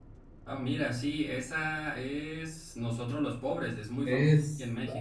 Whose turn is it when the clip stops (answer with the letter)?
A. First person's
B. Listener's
B